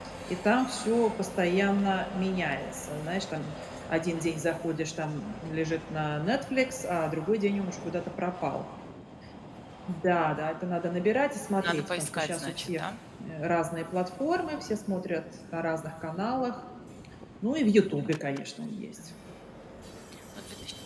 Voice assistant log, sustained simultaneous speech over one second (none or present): present